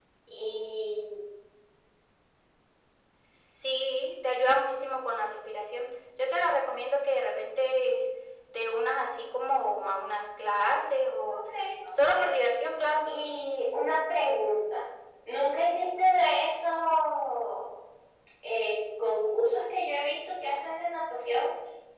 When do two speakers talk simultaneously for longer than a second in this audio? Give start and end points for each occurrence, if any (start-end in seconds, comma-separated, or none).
none